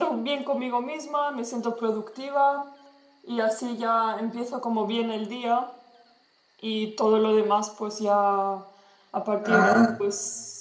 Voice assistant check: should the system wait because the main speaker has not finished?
Yes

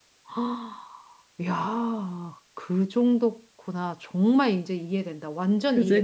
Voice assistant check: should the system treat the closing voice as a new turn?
Yes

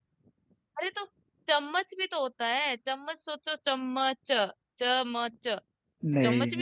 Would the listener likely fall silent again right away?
Yes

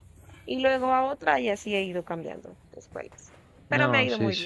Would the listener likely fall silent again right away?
No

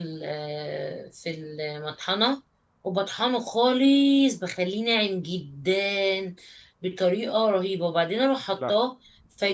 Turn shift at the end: No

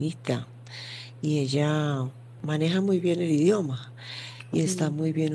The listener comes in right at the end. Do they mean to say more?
No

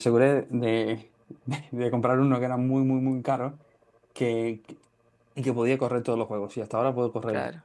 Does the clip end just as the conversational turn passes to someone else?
No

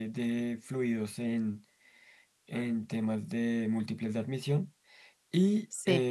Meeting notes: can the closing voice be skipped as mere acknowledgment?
Yes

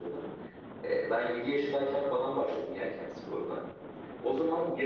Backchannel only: Yes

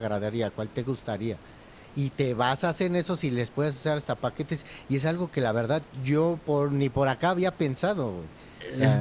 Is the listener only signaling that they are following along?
No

